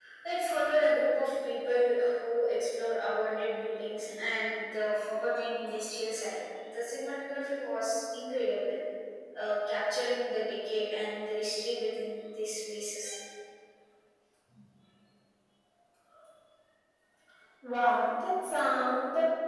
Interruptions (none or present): none